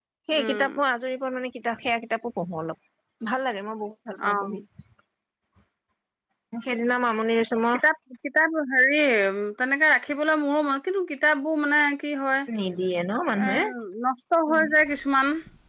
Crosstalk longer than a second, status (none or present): none